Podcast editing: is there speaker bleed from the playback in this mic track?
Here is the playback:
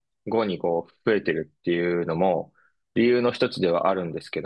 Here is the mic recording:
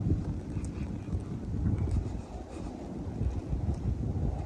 No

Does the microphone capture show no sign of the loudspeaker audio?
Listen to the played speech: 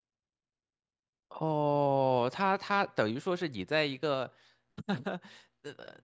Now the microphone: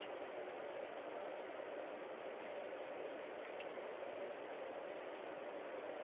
Yes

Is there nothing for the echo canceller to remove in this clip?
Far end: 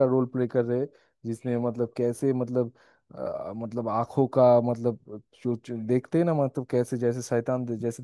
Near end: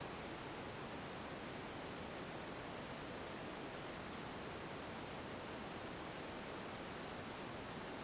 Yes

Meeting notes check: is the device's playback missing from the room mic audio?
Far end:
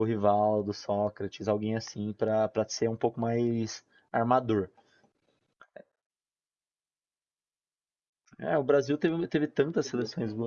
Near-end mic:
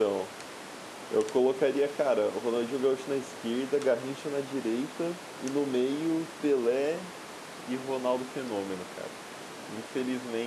Yes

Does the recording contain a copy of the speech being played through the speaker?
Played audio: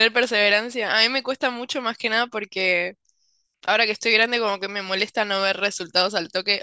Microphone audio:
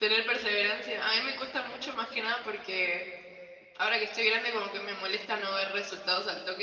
Yes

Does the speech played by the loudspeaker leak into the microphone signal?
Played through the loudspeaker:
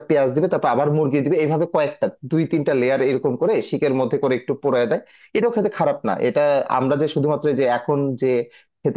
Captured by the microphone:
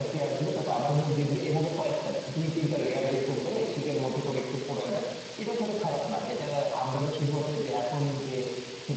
Yes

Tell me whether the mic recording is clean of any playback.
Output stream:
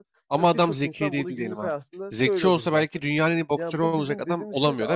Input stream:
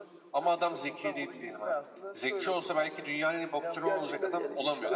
No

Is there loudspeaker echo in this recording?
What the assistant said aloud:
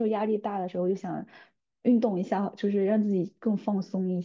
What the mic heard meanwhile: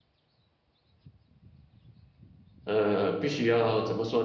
No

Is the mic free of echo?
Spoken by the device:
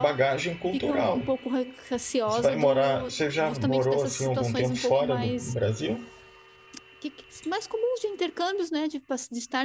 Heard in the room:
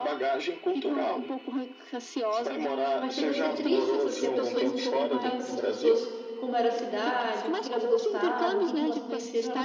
No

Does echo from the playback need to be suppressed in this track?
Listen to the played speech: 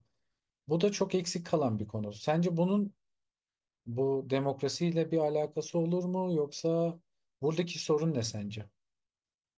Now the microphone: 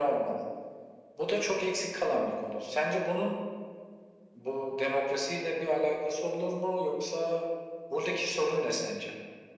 Yes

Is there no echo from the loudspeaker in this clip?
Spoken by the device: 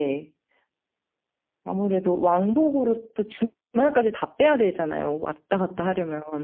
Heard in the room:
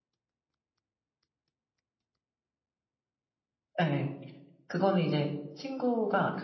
Yes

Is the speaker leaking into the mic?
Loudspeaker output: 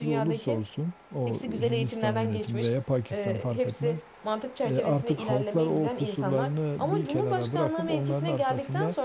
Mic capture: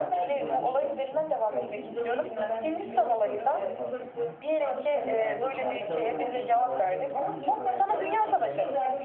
Yes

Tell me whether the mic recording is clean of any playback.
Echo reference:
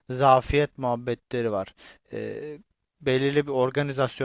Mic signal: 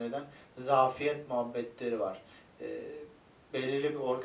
No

